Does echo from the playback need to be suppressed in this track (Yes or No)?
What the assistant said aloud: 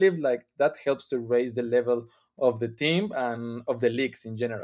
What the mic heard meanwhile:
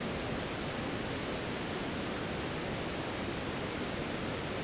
No